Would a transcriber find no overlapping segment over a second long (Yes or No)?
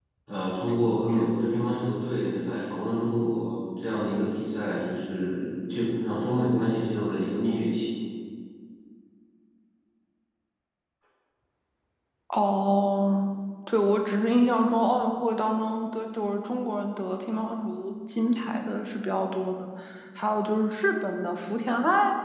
Yes